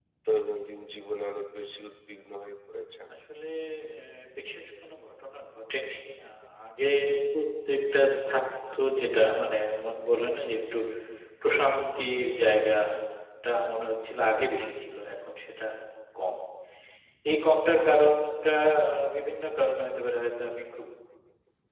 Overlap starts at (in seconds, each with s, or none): none